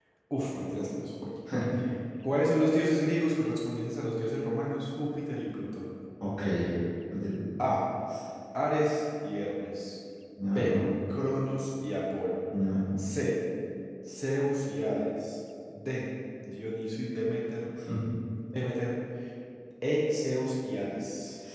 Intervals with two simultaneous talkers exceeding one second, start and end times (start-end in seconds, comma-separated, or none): none